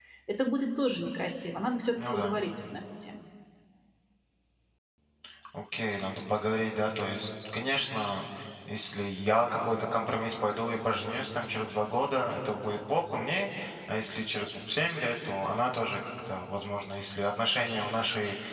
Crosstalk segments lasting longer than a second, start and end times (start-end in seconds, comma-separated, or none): none